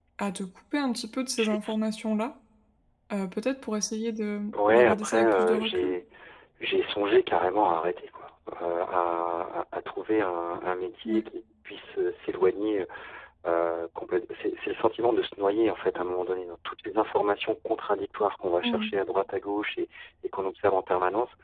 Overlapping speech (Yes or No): Yes